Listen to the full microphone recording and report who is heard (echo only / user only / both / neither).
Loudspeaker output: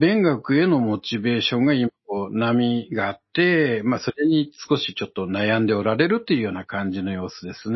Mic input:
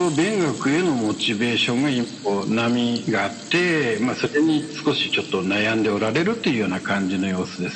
echo only